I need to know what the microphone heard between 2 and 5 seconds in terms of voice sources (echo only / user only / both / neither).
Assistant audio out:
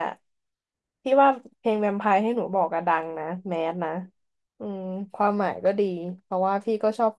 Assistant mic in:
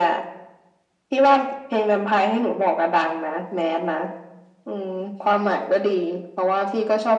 echo only